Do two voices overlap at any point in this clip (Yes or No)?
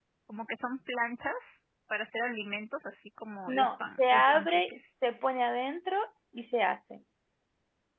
Yes